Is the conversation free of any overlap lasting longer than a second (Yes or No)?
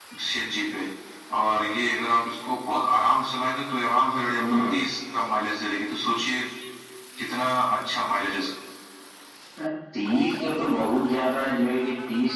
Yes